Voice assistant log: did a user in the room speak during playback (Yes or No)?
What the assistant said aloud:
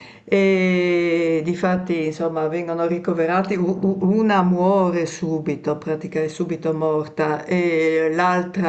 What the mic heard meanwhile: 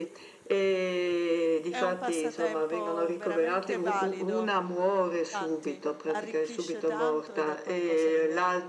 Yes